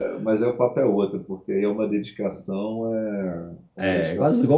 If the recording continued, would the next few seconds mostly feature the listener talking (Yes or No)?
Yes